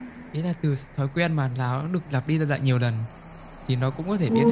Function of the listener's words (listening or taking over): taking over